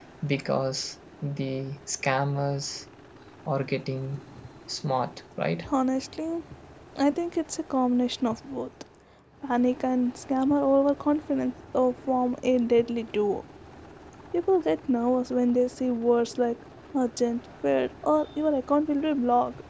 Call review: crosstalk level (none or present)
none